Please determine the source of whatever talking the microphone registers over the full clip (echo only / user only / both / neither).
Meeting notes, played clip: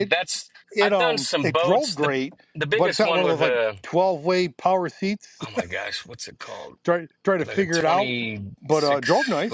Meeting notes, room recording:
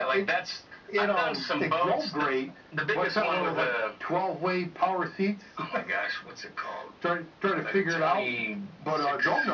echo only